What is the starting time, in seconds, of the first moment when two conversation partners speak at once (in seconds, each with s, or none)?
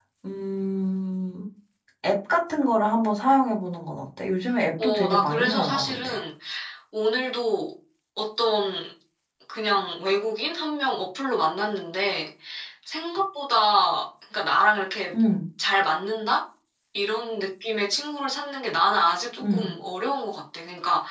4.8 s